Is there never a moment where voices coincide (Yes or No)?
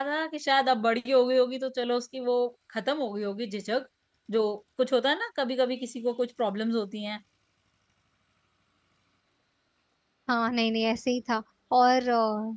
Yes